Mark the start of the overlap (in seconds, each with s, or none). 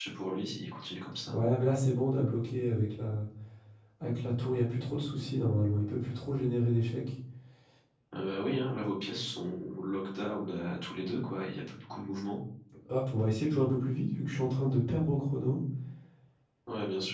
none